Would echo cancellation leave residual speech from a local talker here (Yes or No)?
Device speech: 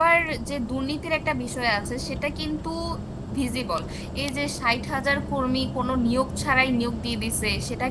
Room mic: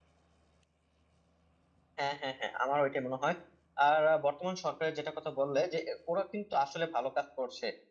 Yes